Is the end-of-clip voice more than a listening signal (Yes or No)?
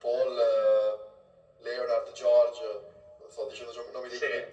Yes